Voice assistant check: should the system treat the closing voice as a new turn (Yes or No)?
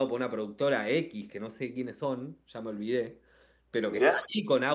No